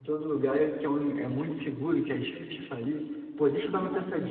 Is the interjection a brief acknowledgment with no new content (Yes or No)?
Yes